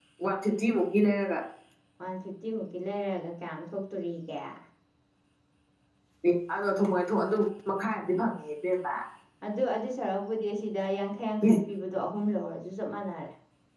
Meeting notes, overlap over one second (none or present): none